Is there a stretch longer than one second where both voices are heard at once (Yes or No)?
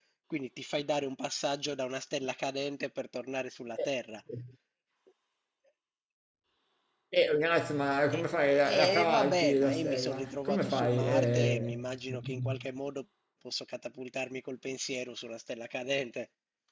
Yes